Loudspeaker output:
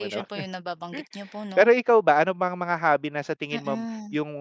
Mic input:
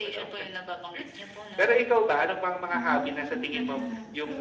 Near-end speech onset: 2.7 s

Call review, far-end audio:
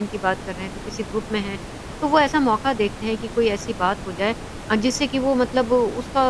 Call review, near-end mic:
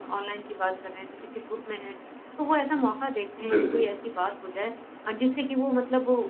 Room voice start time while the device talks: 3.5 s

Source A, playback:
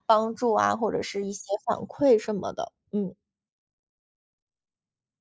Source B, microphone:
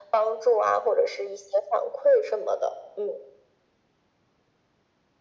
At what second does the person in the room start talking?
none

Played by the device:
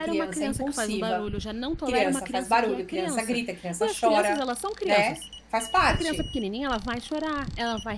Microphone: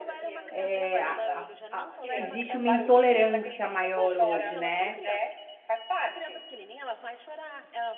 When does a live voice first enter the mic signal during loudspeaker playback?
0.5 s

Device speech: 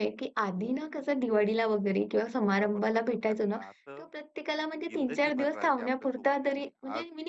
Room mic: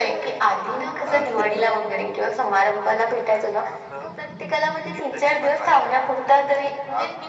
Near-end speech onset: 1.0 s

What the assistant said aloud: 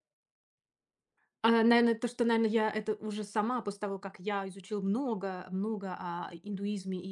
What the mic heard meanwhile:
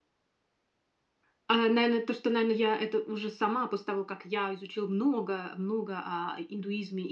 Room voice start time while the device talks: none

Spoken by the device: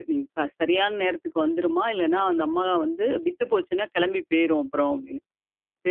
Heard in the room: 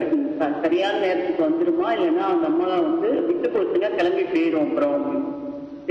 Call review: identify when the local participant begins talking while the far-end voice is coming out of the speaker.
none

